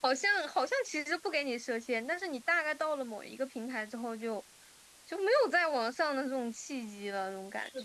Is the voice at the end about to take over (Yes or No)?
Yes